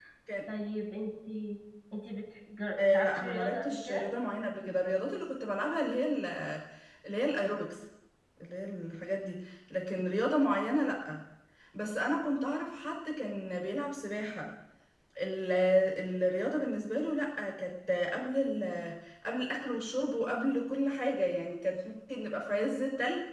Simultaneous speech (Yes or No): Yes